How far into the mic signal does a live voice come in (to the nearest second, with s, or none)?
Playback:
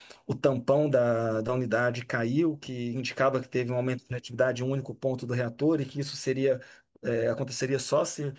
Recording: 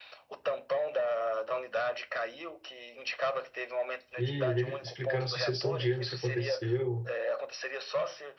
4 s